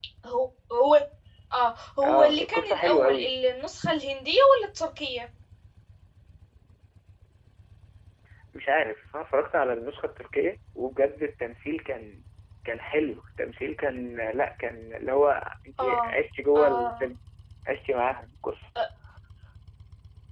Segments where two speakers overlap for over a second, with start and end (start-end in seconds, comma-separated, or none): 2.0-3.3